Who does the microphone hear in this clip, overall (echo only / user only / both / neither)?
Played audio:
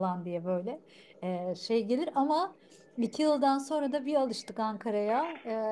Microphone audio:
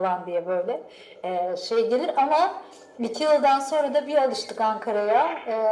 echo only